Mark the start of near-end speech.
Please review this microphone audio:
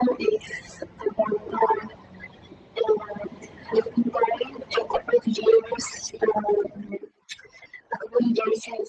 none

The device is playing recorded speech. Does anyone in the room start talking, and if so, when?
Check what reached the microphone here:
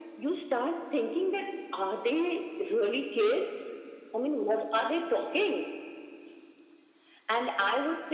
none

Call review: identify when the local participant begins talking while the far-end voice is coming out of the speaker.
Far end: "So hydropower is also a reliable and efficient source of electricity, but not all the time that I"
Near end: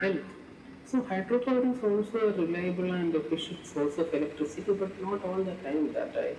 none

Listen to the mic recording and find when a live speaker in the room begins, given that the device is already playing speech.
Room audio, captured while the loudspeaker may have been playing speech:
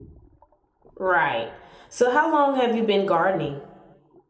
1.0 s

